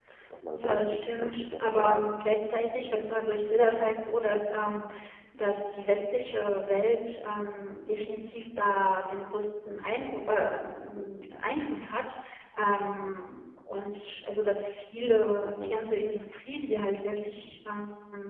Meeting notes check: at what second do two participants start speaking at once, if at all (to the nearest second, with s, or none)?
1 s